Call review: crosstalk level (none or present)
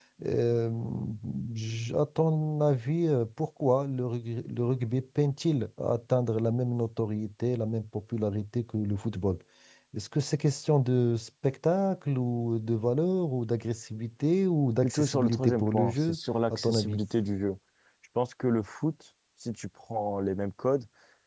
present